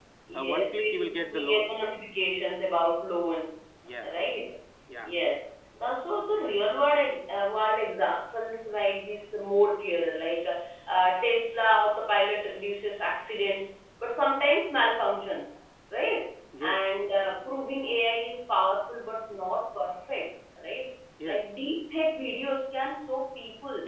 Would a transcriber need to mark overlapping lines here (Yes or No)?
Yes